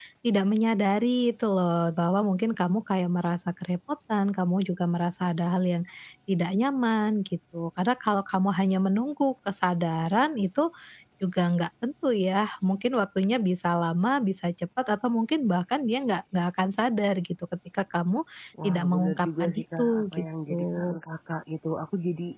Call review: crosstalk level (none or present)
present